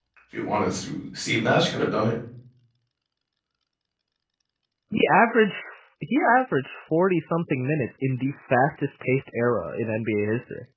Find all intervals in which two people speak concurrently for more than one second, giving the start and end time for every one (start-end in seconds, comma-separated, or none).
none